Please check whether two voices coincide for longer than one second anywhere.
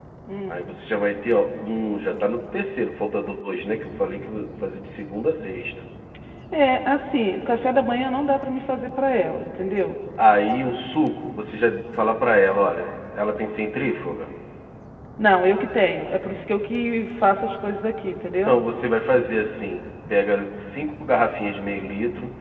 No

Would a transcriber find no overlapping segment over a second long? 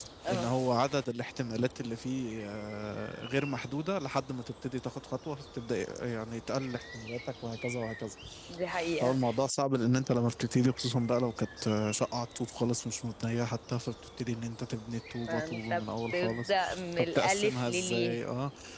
No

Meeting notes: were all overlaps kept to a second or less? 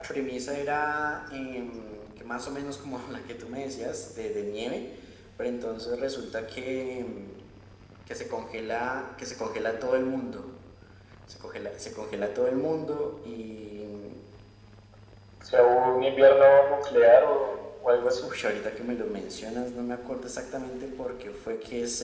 Yes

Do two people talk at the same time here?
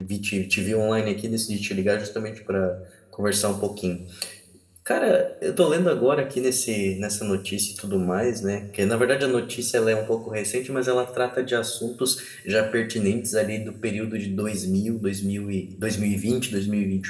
No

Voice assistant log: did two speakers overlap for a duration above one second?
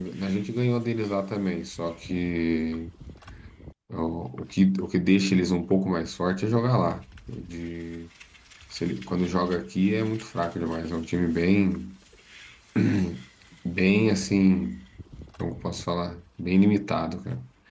No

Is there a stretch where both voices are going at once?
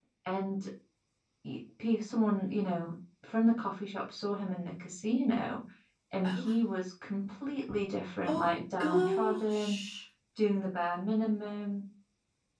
Yes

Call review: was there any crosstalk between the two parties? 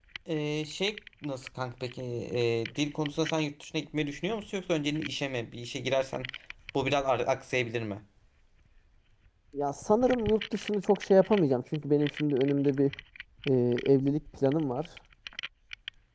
No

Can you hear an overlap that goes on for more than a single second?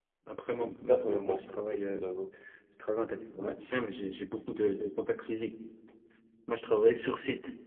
Yes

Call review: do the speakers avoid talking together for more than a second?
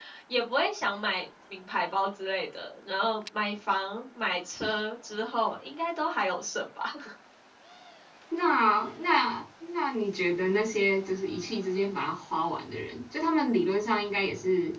Yes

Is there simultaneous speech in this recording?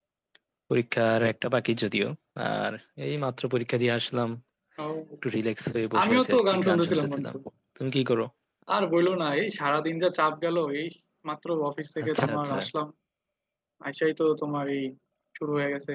Yes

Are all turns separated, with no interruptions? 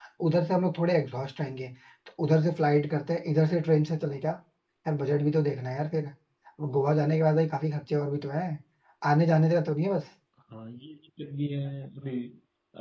Yes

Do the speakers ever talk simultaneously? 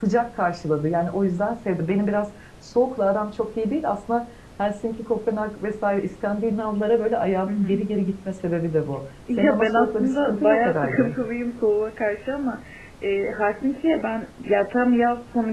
Yes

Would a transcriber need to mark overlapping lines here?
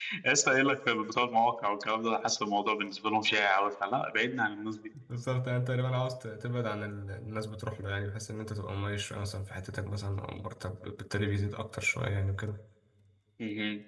No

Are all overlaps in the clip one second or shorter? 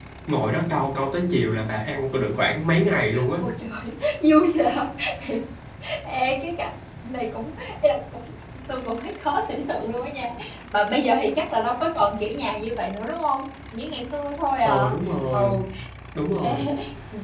Yes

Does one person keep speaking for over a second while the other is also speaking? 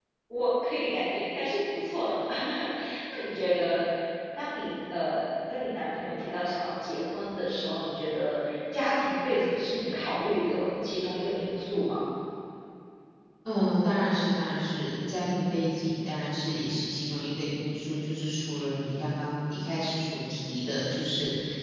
No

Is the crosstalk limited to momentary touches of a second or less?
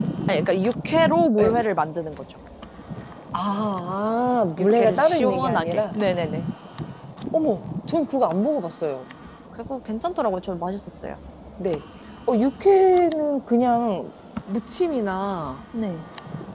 No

